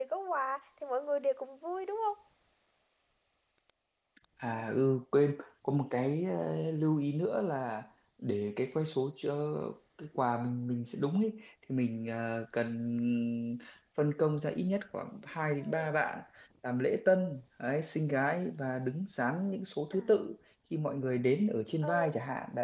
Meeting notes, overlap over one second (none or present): none